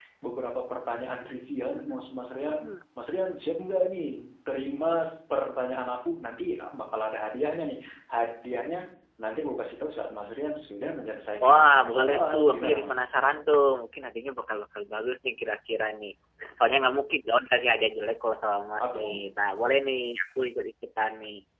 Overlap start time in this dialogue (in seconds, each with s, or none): 1.2 s